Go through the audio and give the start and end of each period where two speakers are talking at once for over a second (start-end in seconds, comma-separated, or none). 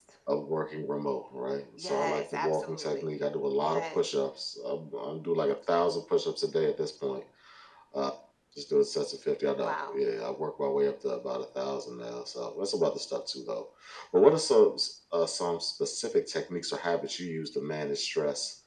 1.8-3.0